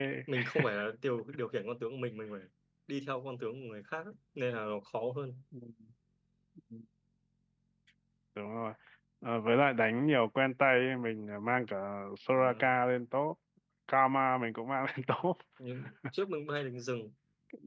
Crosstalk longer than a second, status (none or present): none